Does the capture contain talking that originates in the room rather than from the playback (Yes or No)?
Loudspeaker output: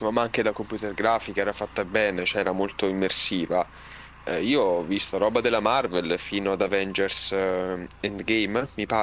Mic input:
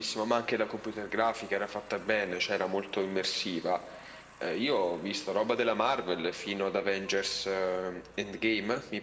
No